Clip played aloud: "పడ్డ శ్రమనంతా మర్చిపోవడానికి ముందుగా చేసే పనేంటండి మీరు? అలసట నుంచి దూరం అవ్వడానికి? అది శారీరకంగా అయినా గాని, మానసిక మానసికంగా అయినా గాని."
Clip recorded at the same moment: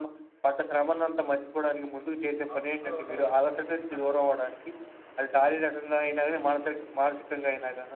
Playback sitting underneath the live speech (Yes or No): No